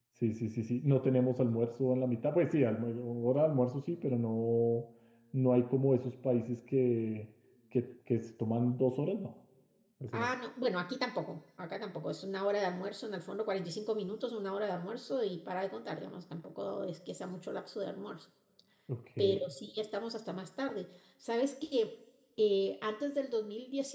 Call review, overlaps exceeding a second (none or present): none